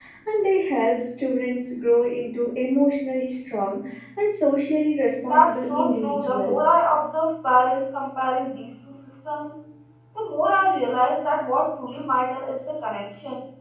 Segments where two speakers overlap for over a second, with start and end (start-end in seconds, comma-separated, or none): 5.2-6.6